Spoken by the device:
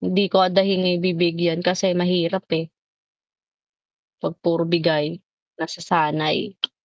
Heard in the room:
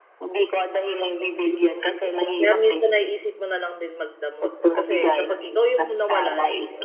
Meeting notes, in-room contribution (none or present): present